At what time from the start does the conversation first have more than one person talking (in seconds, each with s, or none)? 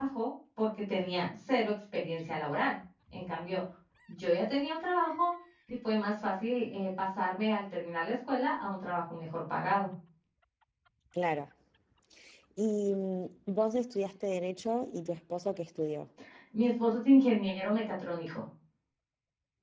none